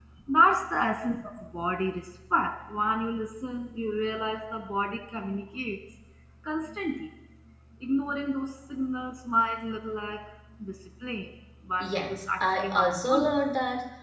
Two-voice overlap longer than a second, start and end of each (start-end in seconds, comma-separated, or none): 11.9-13.3